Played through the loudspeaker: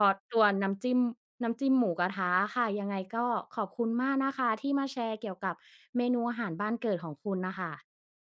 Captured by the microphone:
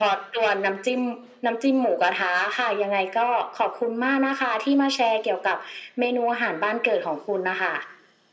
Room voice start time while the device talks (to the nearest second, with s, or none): none